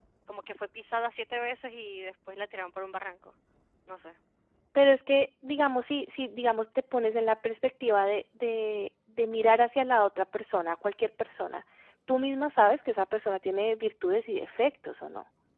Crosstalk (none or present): none